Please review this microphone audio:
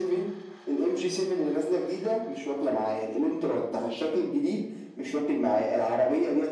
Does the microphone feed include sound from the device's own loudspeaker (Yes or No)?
Yes